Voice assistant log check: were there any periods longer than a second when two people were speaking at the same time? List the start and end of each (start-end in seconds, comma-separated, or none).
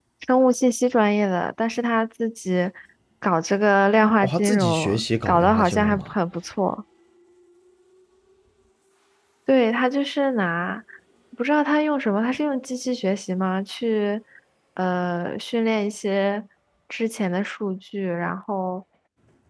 4.2-6.1